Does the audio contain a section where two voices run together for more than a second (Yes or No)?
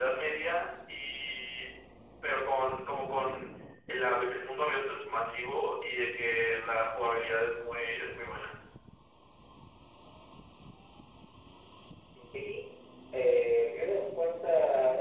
No